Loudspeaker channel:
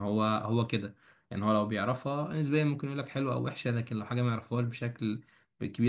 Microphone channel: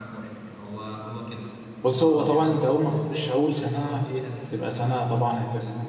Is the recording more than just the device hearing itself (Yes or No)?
Yes